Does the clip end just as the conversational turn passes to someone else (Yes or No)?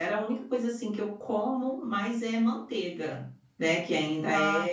No